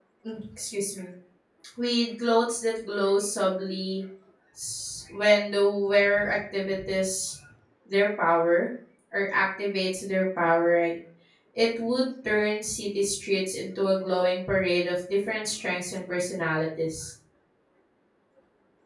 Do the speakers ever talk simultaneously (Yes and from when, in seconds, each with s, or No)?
No